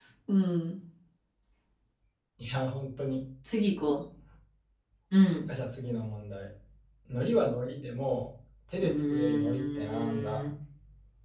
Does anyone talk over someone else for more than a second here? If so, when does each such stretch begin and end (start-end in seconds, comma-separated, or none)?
8.8-10.4